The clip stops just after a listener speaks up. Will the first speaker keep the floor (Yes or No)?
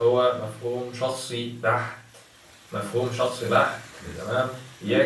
Yes